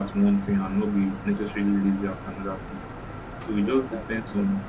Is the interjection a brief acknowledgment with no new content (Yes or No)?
Yes